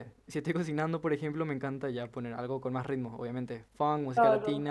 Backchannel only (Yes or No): No